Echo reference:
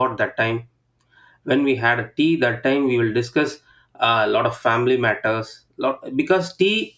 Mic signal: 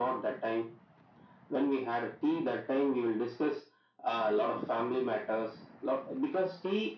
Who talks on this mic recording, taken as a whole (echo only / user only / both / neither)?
echo only